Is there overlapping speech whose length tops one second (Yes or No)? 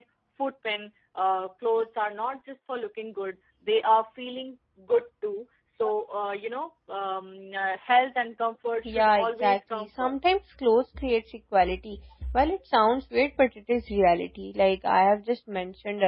Yes